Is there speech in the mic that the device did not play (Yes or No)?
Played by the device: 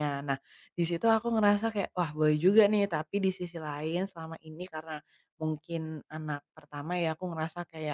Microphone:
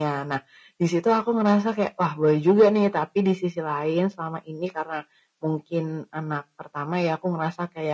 No